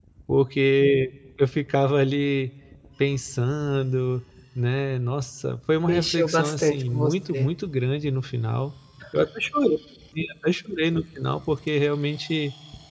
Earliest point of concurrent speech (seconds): 6 s

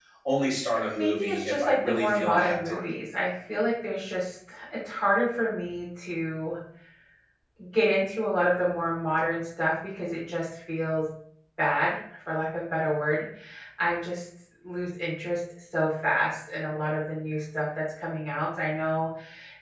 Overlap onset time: 1 s

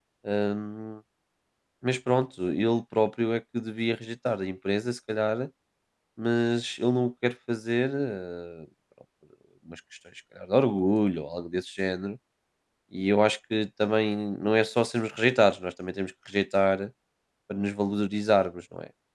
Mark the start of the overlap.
none

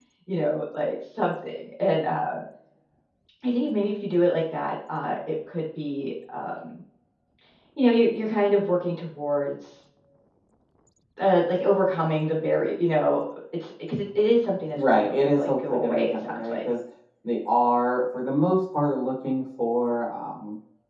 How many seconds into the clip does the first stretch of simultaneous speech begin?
15 s

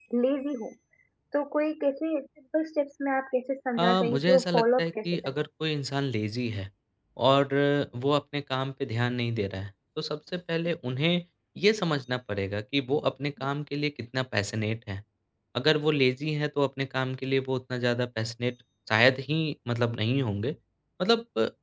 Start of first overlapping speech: 4 s

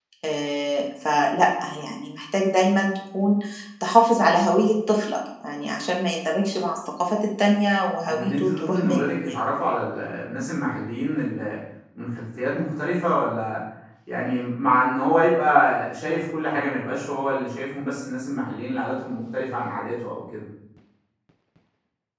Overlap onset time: 8 s

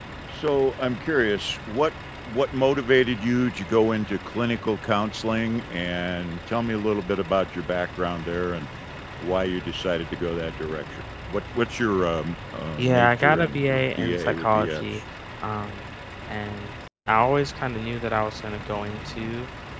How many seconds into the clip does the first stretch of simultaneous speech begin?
13 s

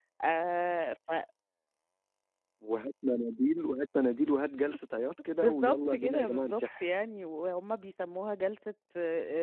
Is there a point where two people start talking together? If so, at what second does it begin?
5 s

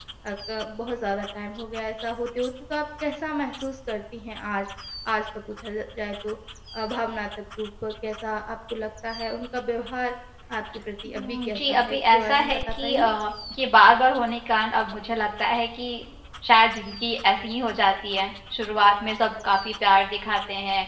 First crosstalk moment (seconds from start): 11 s

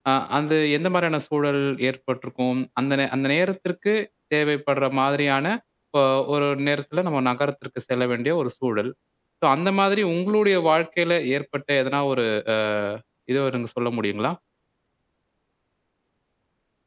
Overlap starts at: none

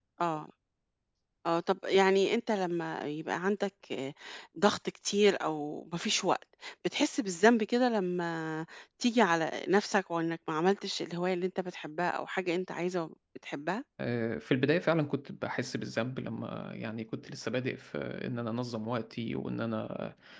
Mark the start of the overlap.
none

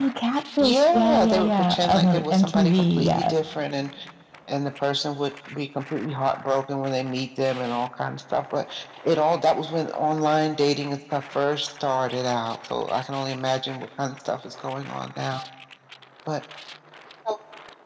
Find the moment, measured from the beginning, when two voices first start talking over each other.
1 s

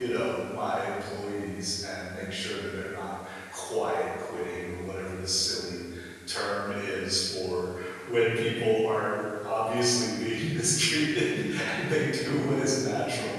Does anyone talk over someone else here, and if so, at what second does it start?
none

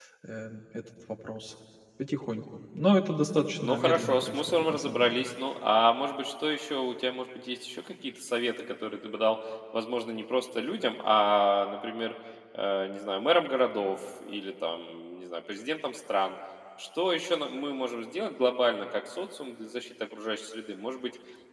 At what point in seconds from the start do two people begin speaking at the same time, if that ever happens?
4 s

